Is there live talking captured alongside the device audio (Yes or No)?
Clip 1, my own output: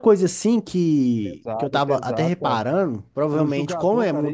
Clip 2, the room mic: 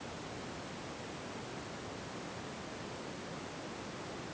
No